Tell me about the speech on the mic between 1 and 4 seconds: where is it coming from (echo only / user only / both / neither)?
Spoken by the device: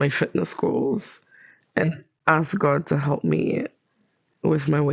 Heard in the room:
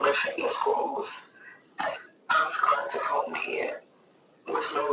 echo only